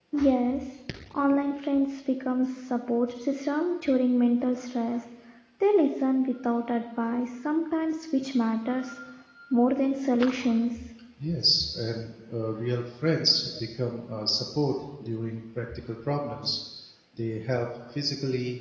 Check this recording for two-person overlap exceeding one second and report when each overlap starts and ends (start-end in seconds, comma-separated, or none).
none